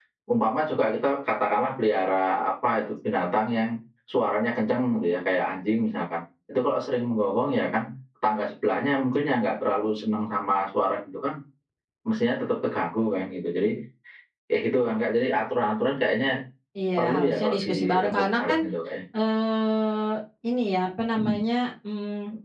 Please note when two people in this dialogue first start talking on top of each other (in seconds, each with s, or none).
17.0 s